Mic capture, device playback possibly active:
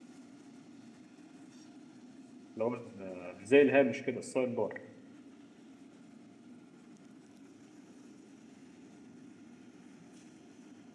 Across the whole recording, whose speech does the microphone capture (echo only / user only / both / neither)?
user only